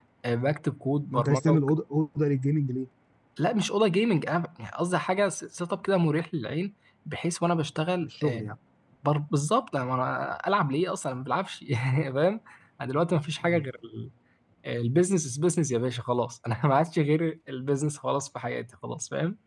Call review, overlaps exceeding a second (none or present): none